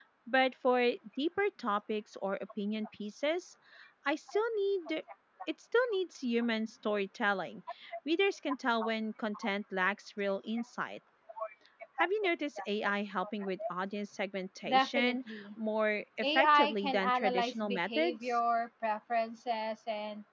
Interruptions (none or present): present